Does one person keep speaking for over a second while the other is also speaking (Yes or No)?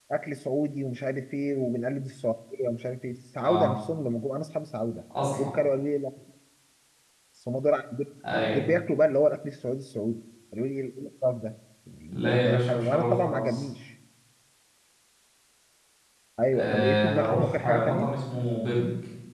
Yes